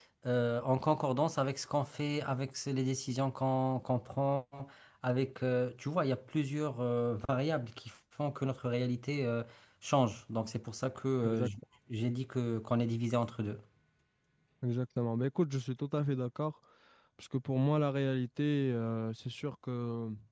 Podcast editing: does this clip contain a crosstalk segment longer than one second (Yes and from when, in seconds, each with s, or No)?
No